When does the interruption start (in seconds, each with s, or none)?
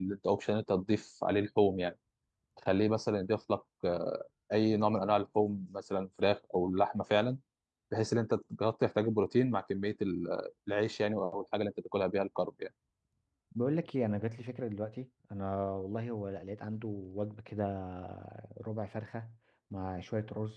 none